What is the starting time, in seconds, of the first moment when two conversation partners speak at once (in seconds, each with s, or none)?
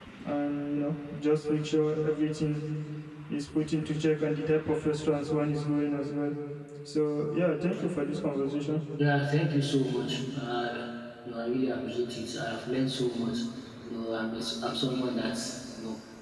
none